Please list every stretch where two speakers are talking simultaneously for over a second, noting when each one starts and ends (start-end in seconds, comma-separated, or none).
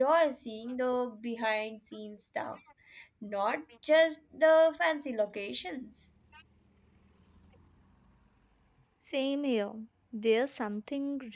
none